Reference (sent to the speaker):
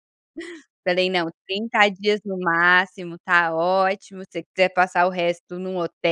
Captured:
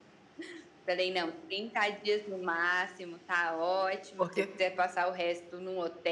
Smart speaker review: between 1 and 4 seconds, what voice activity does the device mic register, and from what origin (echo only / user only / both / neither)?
echo only